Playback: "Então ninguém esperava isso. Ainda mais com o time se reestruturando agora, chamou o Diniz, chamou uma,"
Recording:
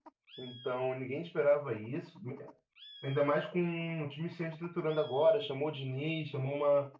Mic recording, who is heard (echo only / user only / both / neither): echo only